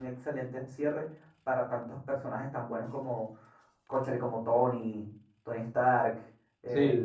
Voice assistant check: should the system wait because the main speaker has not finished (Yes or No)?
Yes